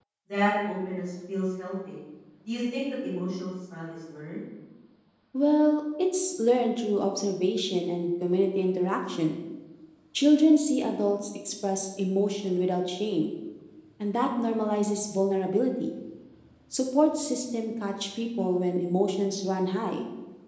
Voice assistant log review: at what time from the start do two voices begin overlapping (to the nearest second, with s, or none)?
none